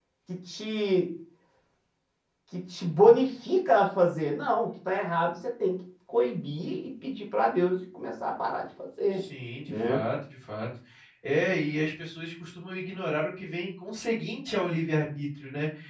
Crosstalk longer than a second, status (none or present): none